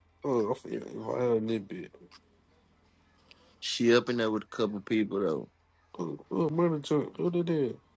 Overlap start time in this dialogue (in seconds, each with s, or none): none